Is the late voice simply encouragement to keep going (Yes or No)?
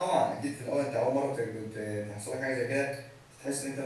Yes